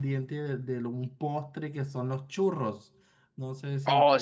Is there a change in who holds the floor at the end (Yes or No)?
Yes